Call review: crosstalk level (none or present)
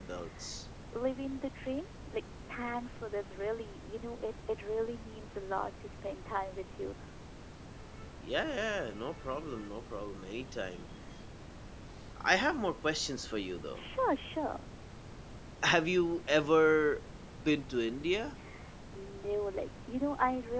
none